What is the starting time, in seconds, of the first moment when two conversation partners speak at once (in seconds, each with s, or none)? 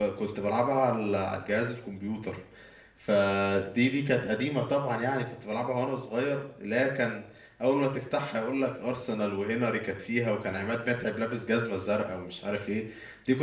none